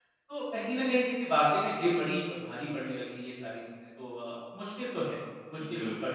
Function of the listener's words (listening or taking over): taking over